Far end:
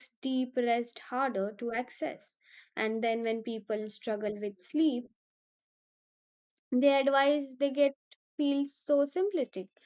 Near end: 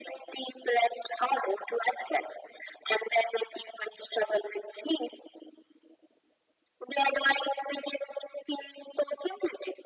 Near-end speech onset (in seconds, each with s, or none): none